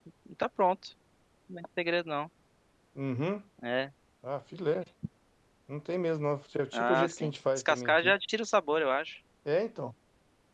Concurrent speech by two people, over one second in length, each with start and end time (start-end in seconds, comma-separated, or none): 6.7-8.2